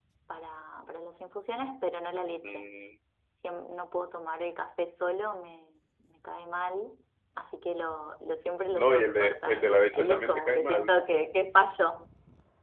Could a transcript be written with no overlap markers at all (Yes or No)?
No